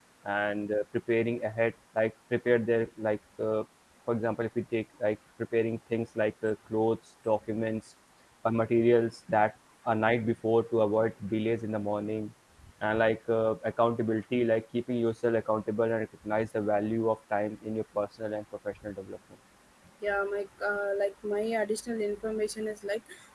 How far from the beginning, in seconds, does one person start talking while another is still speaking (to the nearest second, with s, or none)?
none